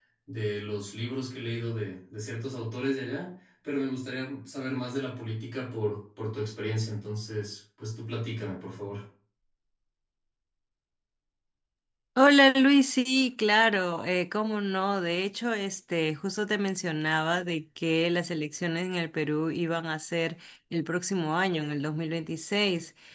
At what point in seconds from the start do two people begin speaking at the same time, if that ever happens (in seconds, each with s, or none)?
none